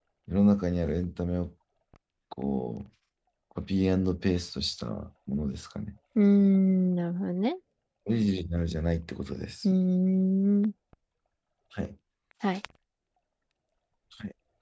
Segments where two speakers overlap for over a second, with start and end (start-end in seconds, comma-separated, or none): none